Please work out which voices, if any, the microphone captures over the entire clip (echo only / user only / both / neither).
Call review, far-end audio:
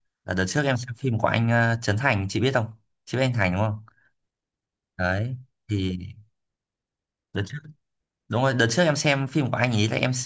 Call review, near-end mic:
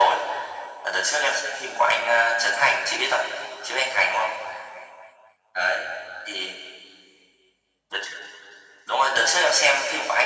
echo only